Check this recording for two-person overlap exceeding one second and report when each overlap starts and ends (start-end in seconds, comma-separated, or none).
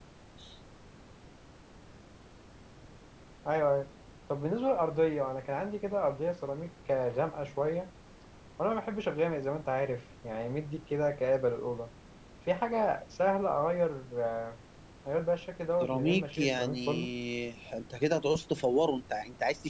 15.8-17.1